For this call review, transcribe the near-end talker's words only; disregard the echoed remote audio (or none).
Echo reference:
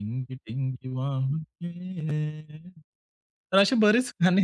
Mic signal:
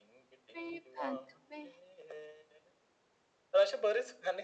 मेरी बात में.